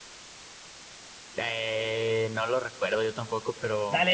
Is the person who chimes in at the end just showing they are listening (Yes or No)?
No